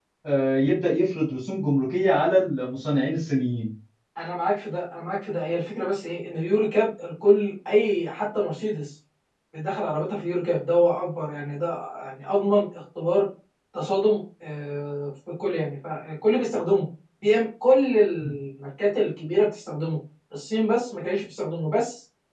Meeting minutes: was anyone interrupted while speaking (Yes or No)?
No